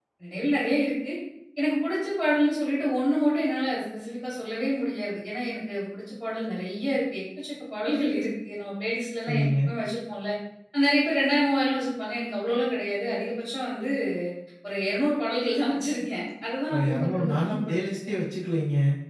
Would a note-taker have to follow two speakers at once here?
Yes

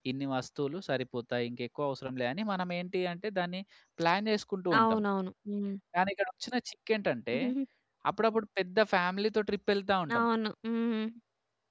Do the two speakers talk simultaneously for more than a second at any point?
No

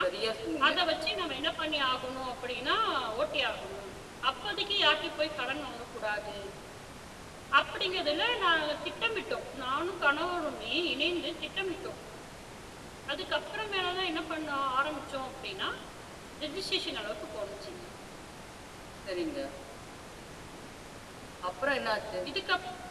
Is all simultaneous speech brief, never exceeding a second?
Yes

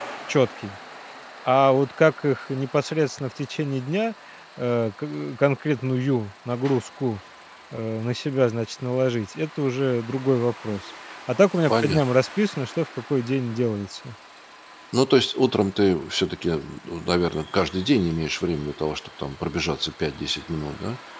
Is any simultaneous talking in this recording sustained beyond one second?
No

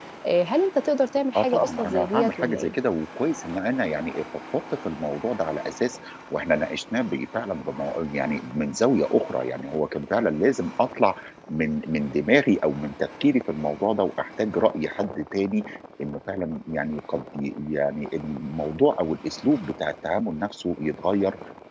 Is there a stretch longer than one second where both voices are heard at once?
Yes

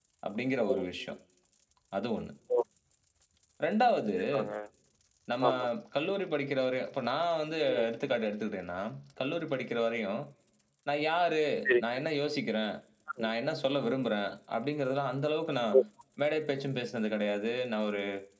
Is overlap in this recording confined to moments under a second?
Yes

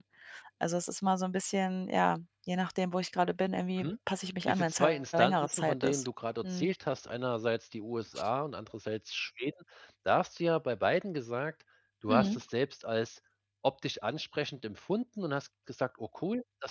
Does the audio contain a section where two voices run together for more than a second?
Yes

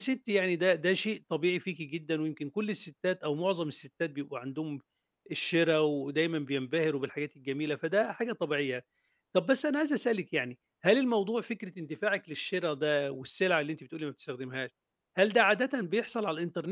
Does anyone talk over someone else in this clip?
No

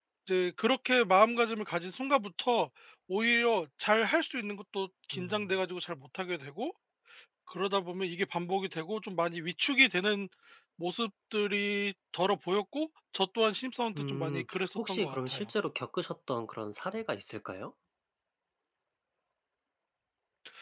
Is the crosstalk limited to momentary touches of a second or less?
No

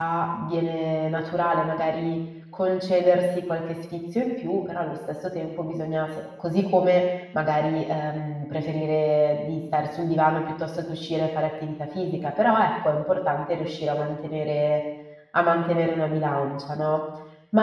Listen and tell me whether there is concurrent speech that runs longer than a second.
No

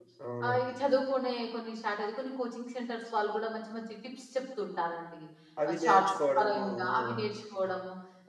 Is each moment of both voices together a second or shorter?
No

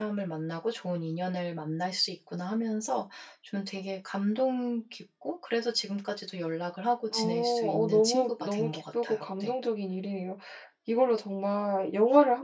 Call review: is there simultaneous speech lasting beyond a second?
Yes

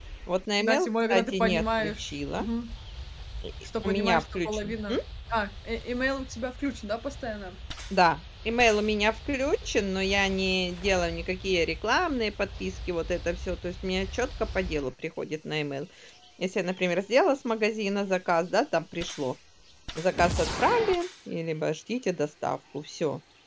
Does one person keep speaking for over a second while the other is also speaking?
Yes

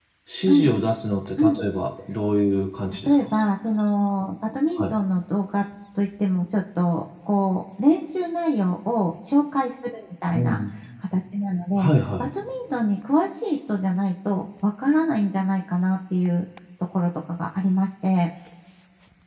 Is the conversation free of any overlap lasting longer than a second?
Yes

